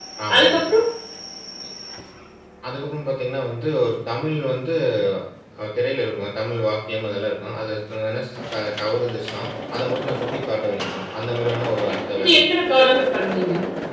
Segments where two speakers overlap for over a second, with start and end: none

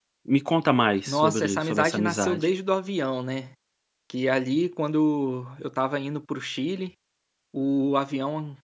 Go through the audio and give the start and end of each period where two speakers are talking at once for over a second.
1.1-2.5

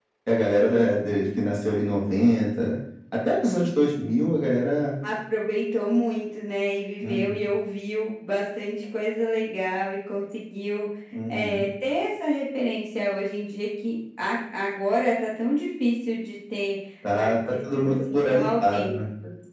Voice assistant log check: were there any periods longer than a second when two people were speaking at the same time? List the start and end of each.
17.1-19.0

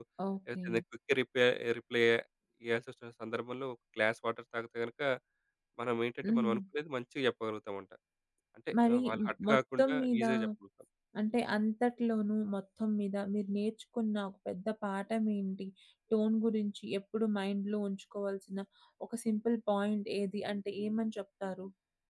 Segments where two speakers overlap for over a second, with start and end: 8.8-10.2

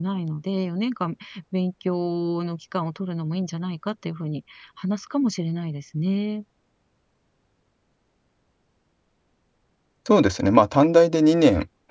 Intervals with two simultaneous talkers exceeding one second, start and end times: none

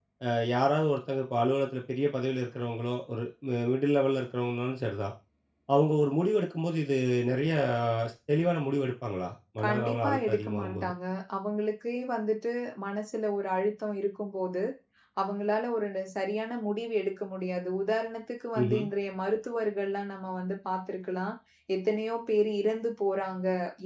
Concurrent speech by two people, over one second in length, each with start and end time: 9.6-10.9

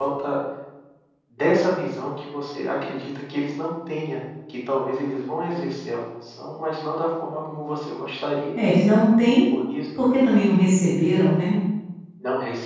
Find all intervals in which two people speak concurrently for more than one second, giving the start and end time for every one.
none

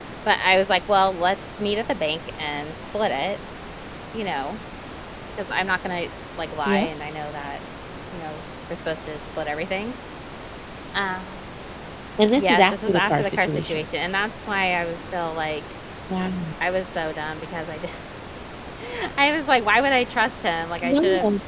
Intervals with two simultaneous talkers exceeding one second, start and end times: 12.3-13.9

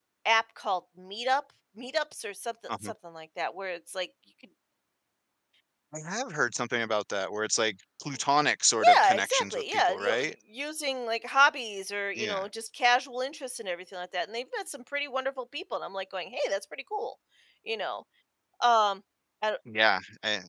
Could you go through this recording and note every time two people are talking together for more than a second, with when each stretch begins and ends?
9.0-10.2

